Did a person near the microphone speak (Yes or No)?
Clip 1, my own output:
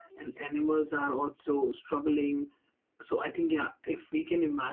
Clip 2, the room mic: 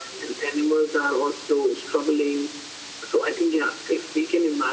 No